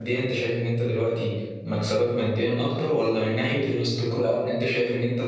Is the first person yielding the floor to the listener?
No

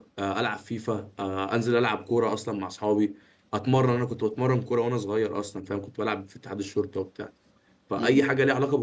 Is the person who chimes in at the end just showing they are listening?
Yes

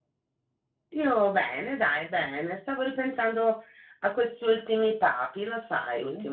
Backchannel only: No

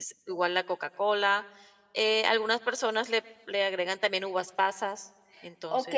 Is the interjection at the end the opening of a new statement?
Yes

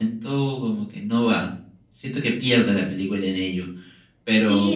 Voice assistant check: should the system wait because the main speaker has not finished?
No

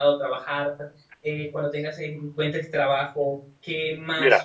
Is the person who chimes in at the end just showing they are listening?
Yes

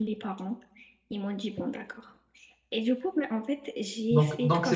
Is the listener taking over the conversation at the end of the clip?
Yes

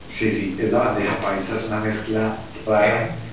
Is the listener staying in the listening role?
Yes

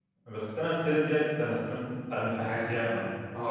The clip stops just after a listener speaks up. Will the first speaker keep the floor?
No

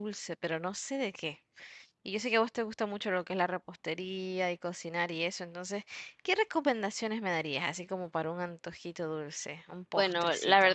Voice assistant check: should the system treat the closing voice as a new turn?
Yes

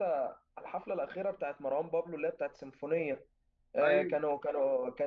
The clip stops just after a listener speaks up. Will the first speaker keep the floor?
Yes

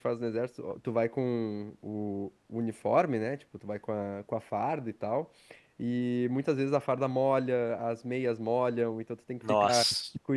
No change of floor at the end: Yes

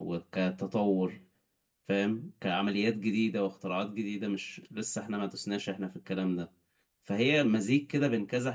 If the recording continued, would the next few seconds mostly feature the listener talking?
No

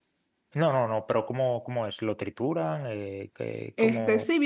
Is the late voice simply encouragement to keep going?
No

